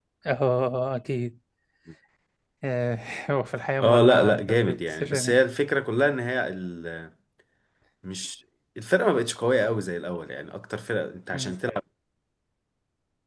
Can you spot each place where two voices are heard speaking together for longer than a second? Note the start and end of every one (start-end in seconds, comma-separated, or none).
3.8-5.4